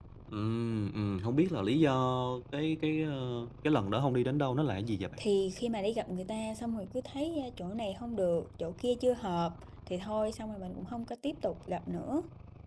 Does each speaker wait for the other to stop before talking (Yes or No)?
Yes